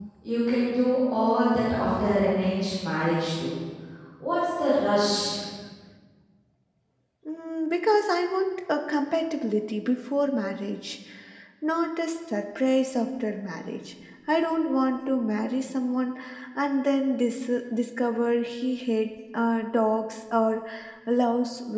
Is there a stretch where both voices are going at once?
No

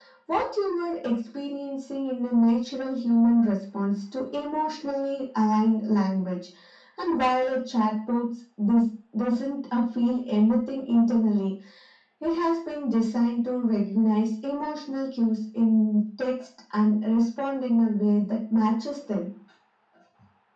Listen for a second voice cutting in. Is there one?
No

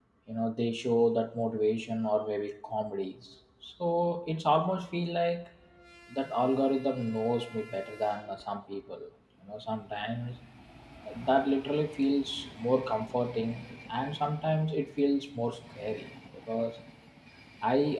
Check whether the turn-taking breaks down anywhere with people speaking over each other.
No

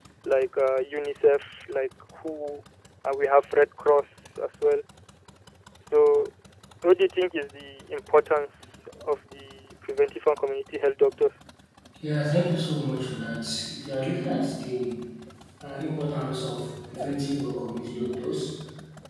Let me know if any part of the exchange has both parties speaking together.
No

